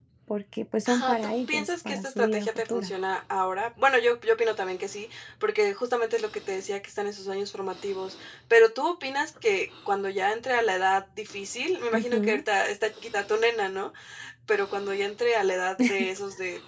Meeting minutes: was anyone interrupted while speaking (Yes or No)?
Yes